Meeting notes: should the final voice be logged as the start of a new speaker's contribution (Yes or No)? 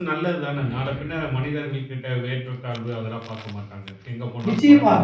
Yes